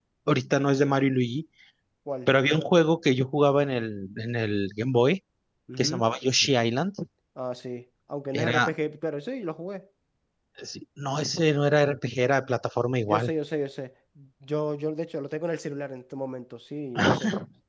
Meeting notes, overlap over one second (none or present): none